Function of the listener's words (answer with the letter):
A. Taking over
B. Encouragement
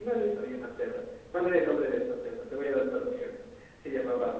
B